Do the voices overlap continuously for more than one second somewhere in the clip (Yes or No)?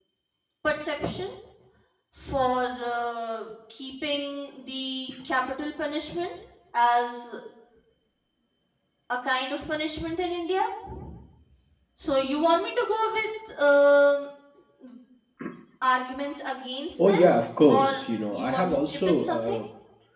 Yes